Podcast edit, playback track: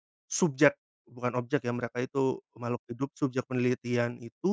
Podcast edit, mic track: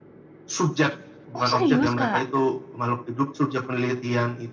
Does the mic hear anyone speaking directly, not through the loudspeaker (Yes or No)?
Yes